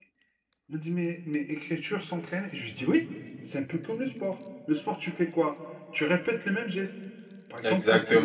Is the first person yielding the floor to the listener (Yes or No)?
No